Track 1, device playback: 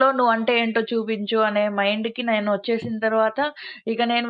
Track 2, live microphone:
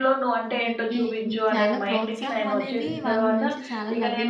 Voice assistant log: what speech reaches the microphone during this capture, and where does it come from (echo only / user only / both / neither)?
both